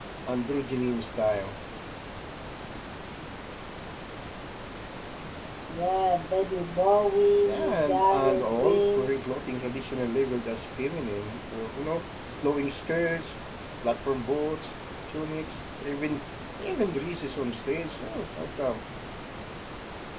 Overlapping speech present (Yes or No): Yes